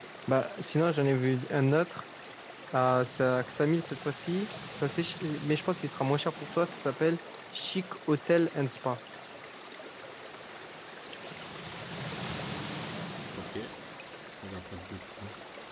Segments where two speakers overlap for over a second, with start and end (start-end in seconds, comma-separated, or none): none